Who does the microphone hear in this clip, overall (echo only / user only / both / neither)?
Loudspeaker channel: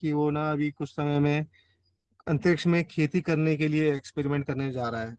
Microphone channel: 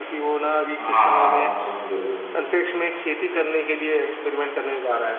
both